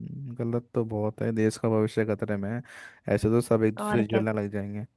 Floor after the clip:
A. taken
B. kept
B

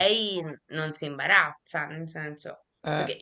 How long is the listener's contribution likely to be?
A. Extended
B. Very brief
B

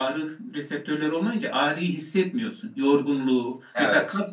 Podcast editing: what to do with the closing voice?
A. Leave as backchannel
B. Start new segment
A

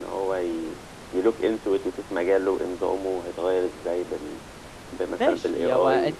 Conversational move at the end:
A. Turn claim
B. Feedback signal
A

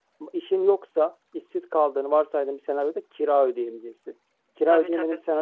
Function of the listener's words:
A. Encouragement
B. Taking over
A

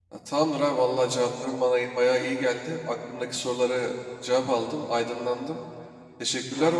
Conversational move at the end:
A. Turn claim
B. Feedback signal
B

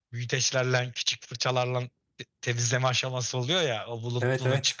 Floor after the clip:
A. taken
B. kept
B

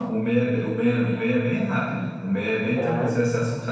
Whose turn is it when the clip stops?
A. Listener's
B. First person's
B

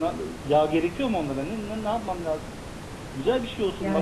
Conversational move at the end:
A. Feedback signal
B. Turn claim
A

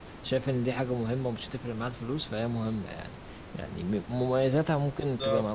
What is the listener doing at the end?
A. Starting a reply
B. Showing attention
B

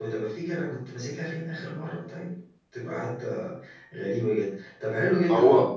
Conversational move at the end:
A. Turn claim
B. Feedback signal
B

